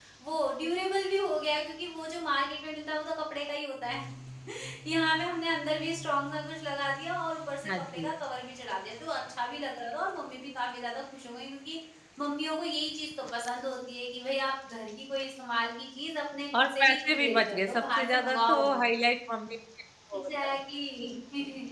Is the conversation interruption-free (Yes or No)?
No